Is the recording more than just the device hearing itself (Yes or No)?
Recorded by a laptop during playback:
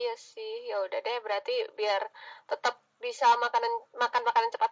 No